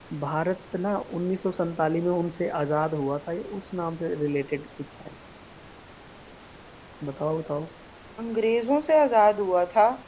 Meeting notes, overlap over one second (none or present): none